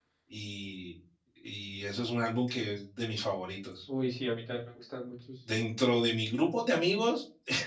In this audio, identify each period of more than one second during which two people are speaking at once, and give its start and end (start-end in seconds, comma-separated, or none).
none